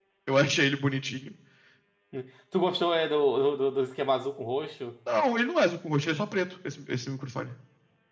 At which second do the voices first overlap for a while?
none

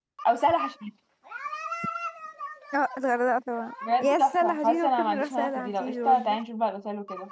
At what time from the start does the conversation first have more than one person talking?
3.8 s

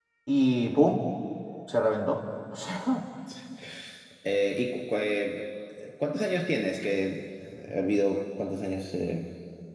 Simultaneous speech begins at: none

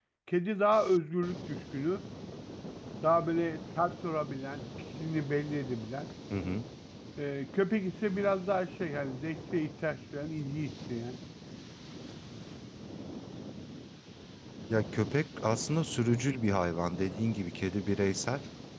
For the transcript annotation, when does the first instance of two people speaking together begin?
none

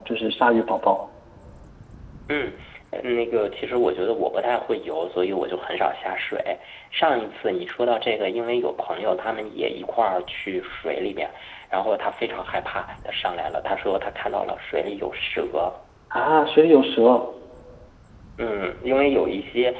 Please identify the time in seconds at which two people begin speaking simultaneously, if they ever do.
none

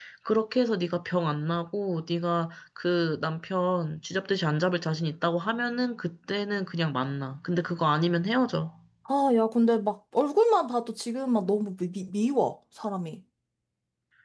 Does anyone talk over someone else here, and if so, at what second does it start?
none

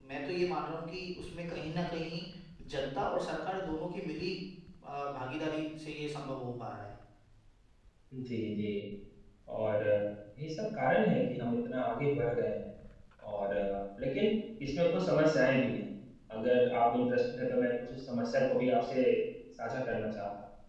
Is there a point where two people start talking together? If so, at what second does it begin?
none

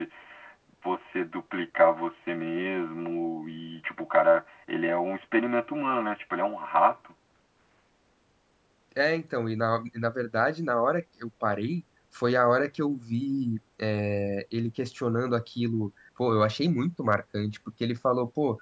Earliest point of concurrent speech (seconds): none

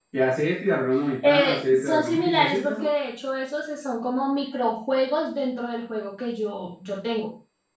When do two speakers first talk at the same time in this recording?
1.2 s

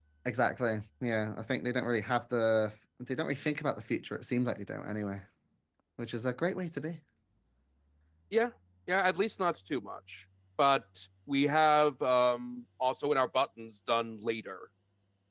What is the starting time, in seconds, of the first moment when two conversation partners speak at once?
none

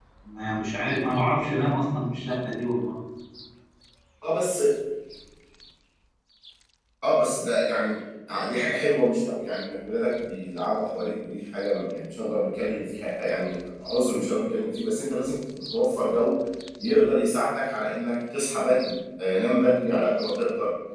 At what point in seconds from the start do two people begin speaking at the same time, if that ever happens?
none

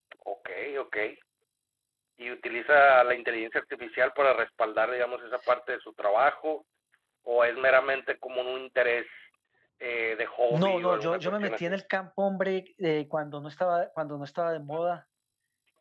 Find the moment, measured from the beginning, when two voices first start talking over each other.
10.5 s

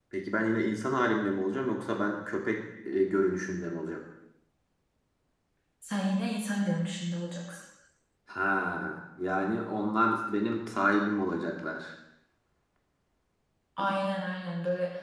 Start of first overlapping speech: none

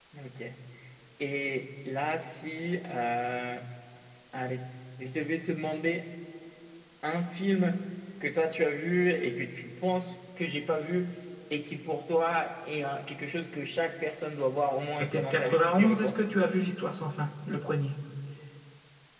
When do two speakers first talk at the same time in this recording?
15.0 s

